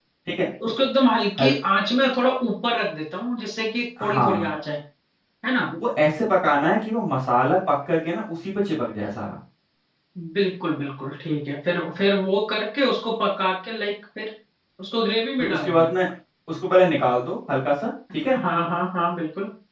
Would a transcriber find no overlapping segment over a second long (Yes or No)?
Yes